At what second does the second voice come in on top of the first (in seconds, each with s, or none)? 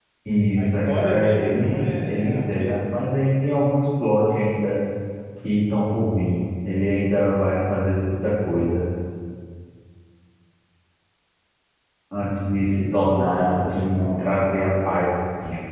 0.6 s